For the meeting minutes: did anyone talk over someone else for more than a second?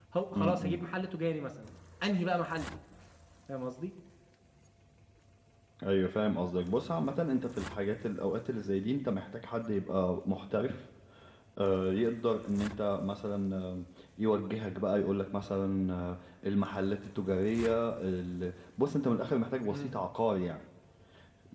No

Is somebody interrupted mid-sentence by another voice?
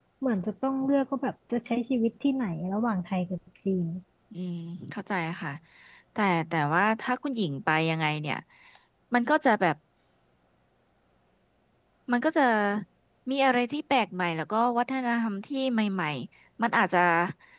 No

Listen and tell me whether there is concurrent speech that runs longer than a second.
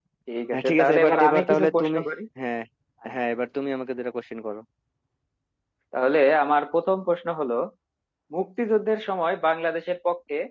Yes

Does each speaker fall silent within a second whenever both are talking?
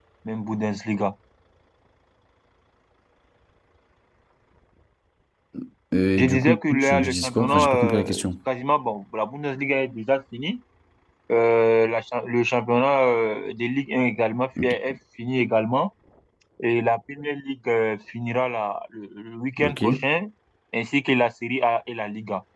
No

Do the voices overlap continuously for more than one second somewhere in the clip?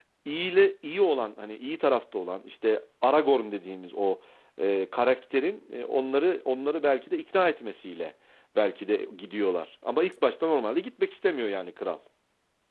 No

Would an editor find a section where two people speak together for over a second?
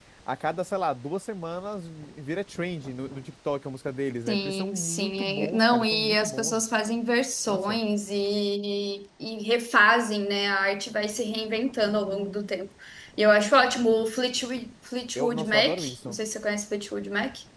Yes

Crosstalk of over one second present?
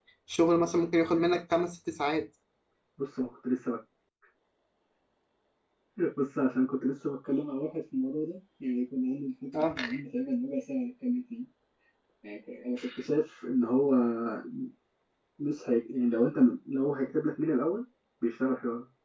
No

